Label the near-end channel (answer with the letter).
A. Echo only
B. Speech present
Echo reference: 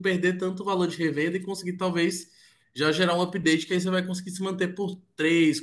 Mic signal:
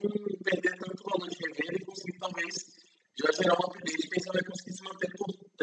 A